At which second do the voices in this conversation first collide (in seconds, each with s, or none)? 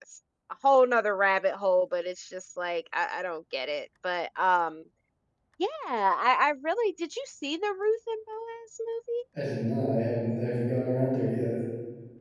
none